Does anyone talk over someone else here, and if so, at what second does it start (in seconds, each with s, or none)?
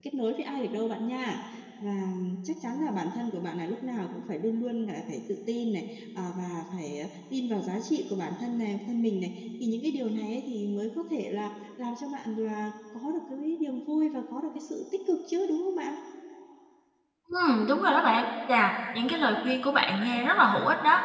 none